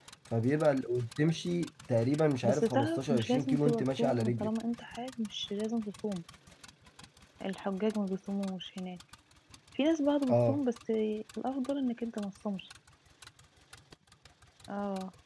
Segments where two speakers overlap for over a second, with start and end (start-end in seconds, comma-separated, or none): 2.4-4.5